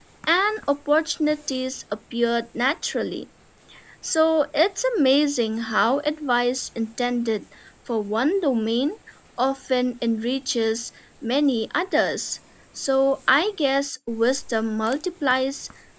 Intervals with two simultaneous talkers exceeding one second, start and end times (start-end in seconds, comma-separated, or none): none